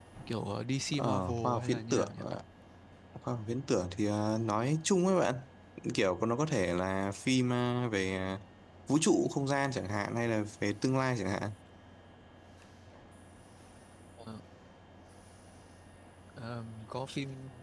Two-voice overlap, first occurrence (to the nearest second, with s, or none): 1 s